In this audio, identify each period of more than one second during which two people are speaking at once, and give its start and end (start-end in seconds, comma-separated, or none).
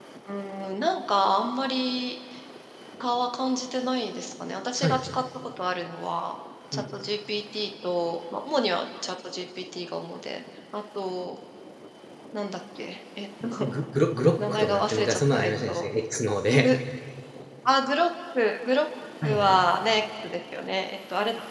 14.5-15.9